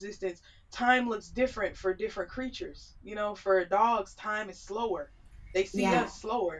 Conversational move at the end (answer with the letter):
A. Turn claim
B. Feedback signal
B